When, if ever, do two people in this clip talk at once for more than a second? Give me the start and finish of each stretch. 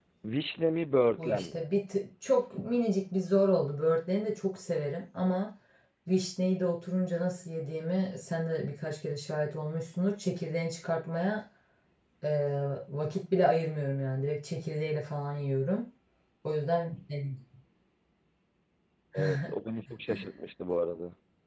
none

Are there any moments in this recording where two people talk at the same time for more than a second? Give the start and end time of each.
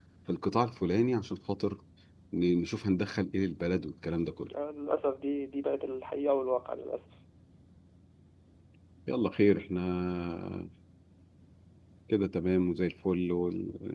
none

